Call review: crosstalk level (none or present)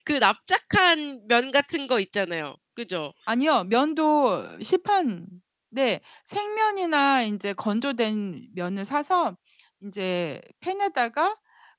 none